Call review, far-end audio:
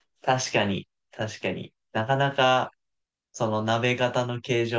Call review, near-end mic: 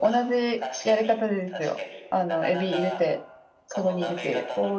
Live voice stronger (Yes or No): Yes